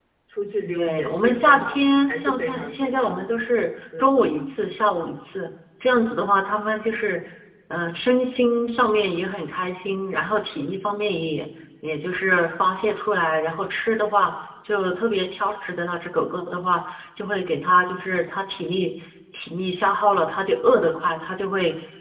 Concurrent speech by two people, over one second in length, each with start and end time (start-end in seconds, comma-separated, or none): 0.7-3.4